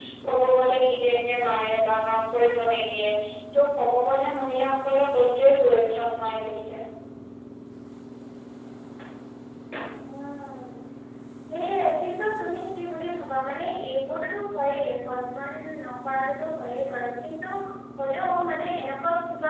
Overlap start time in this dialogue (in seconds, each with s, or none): none